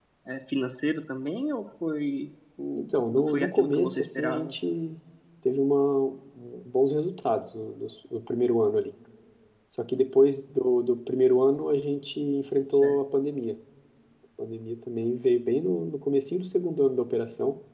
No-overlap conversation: No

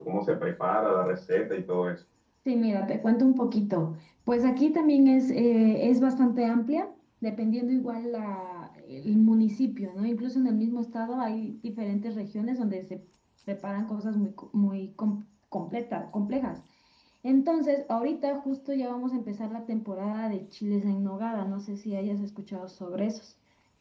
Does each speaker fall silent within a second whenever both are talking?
Yes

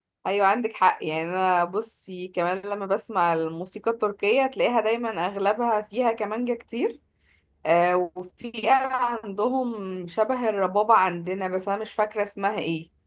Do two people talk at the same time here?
No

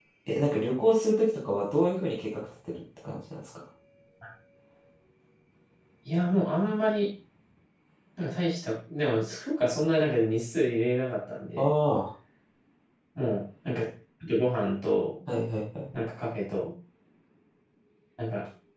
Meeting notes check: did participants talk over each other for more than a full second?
No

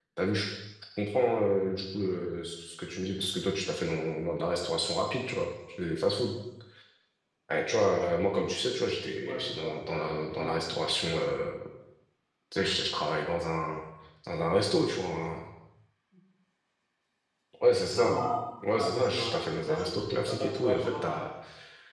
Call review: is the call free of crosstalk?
No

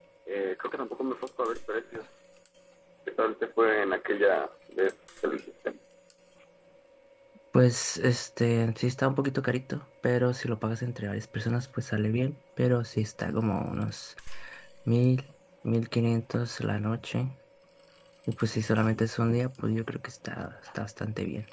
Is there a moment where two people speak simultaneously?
No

